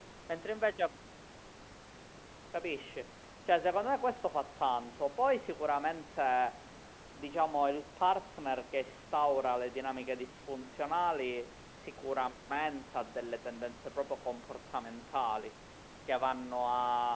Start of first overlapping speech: none

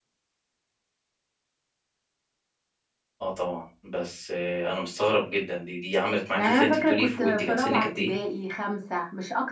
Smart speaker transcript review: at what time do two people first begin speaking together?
6 s

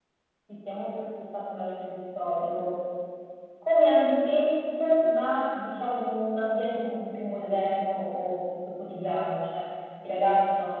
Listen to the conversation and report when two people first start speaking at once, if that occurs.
none

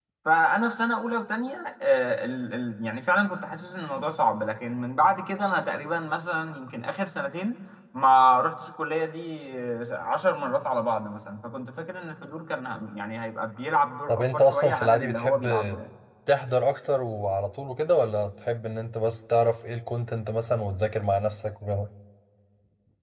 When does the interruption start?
14 s

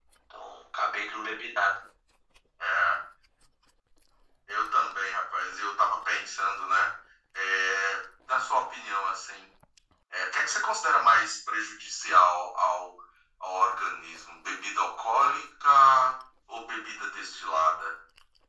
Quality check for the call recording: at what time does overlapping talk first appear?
none

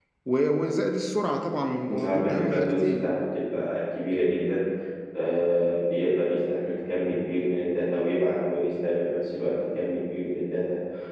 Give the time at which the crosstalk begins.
2 s

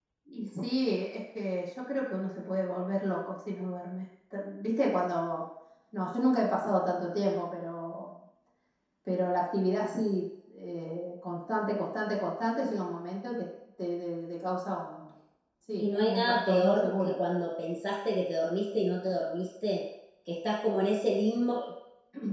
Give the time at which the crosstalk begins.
16 s

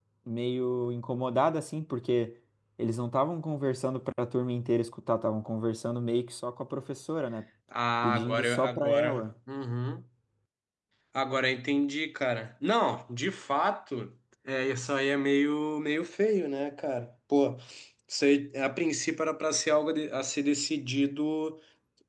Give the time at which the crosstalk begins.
8 s

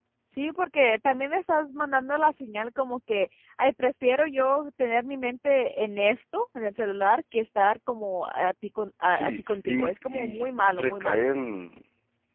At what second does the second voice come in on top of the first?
9 s

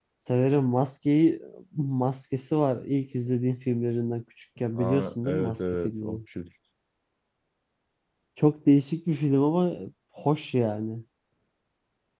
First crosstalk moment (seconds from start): 5 s

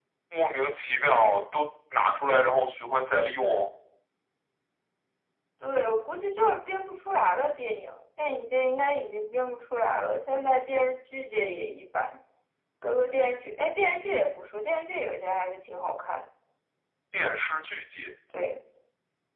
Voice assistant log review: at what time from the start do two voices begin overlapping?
none

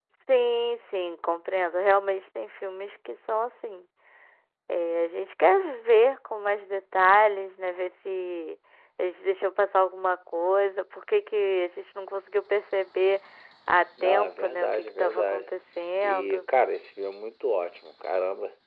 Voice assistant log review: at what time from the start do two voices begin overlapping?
14 s

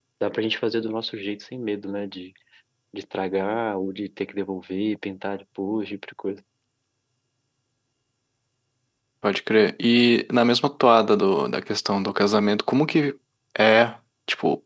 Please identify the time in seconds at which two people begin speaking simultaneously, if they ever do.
none

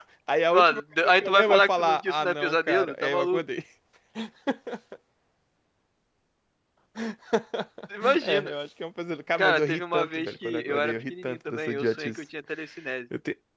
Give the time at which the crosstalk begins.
1 s

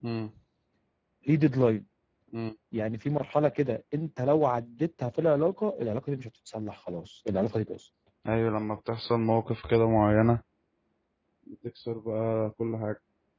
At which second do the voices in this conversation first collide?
none

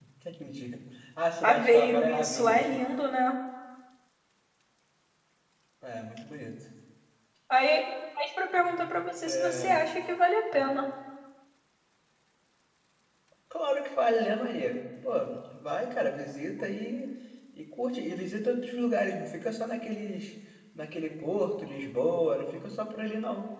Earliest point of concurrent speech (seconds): 1 s

